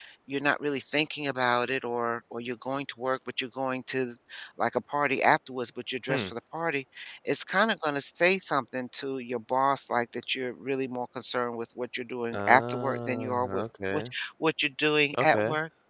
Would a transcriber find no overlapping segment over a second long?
No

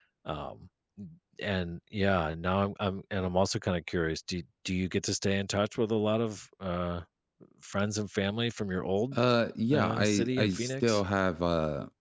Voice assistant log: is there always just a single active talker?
No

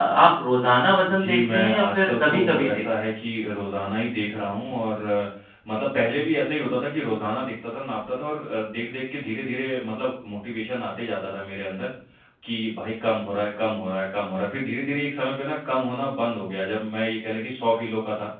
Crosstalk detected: Yes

